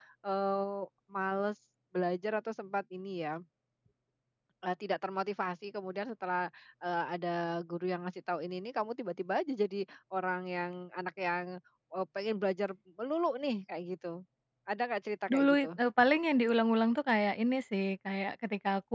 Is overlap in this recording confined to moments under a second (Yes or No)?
Yes